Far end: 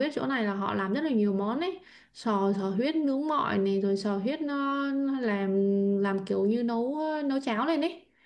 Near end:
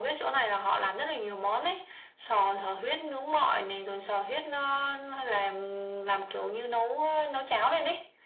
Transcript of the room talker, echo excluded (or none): none